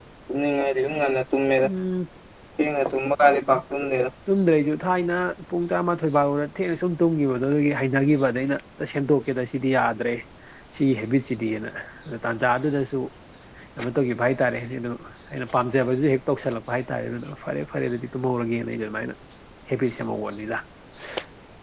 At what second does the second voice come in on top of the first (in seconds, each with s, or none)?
none